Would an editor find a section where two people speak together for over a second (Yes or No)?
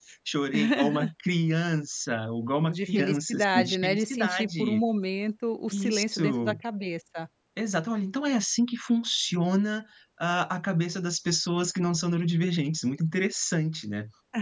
Yes